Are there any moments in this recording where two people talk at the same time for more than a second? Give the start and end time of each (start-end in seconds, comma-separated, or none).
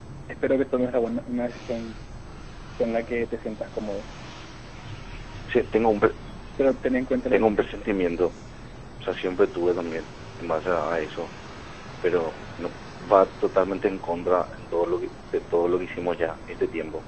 none